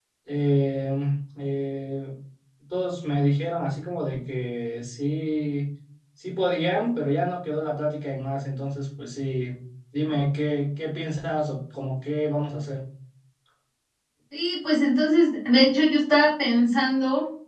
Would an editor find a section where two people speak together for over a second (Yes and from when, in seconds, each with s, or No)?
No